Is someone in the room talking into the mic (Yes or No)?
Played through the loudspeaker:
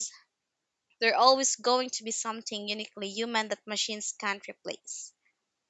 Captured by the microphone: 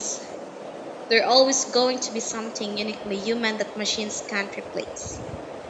No